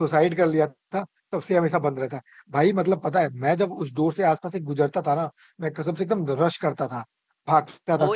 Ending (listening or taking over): taking over